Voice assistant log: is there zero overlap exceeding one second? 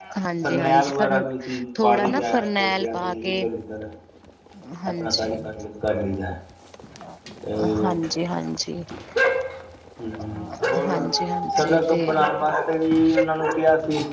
No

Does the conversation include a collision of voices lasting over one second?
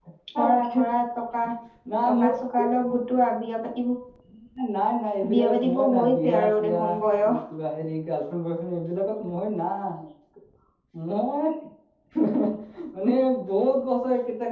Yes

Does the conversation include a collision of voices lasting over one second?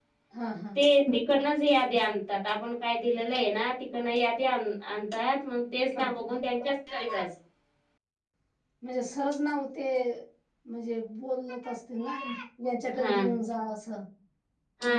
No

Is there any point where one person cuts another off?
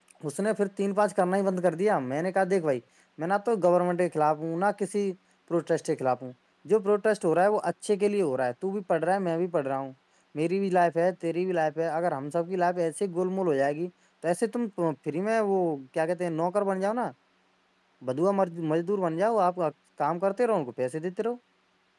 No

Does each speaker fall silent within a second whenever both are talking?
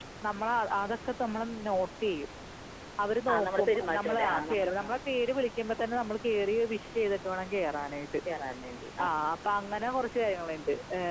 No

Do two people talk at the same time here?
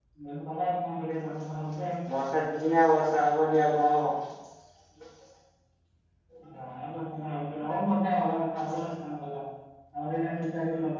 No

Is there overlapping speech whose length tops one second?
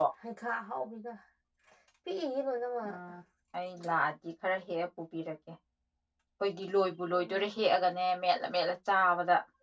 No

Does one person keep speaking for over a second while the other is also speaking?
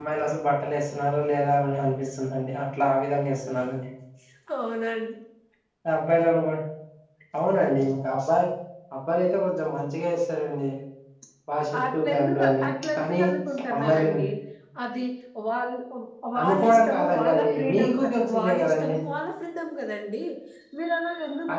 Yes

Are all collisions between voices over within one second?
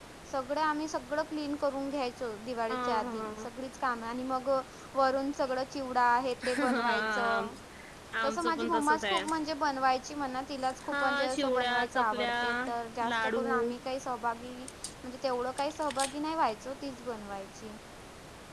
No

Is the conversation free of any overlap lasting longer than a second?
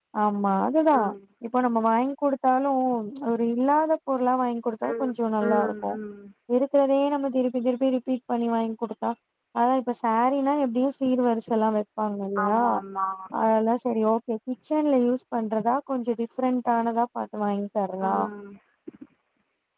Yes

